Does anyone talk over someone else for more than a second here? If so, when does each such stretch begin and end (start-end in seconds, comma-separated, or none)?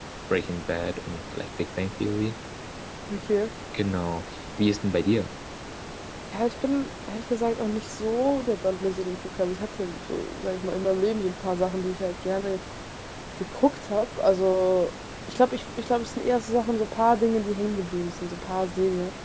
none